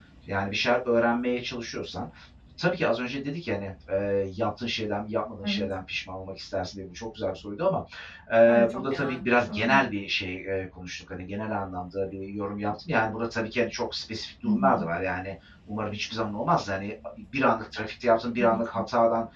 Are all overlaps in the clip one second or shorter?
No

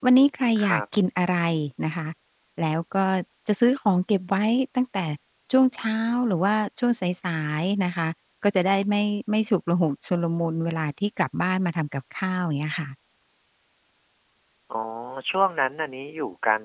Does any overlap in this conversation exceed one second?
No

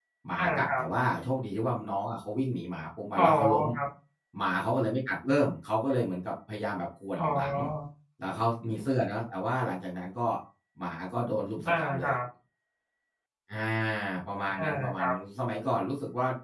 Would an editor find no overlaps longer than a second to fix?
Yes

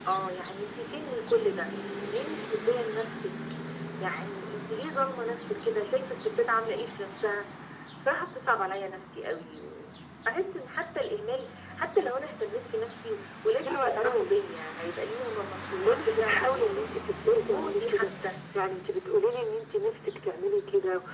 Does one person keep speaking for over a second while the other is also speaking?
Yes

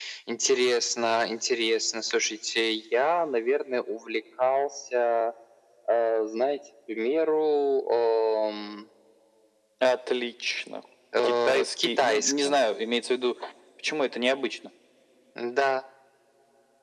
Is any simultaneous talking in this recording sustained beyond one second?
Yes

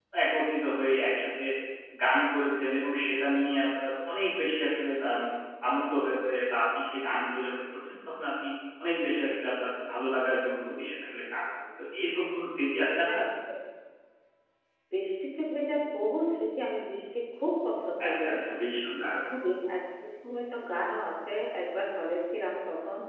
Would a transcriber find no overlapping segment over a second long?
Yes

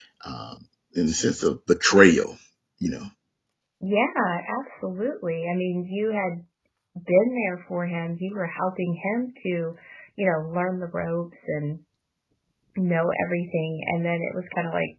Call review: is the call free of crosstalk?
Yes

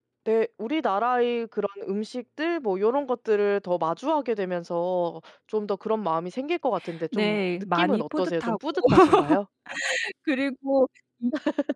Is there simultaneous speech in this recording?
Yes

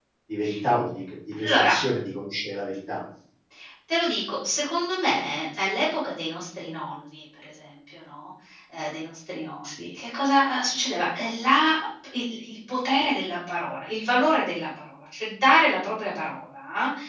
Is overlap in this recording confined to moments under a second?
Yes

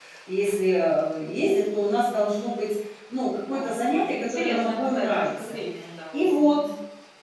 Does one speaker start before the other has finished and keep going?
Yes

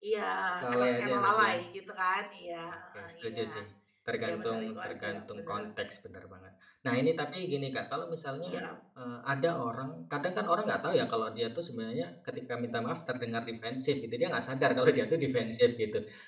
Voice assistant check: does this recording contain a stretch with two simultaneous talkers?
Yes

